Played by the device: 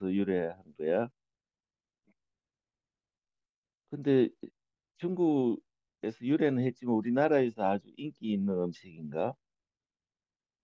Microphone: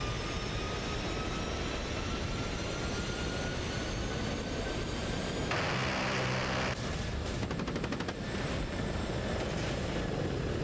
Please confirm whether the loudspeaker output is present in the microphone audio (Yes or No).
No